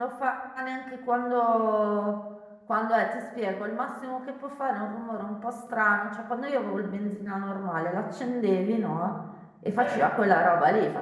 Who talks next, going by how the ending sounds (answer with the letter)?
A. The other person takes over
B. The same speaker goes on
B